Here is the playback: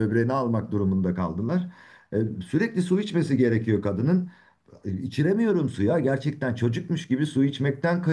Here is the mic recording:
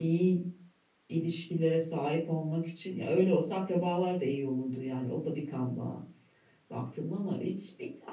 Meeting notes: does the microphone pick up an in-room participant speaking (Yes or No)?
Yes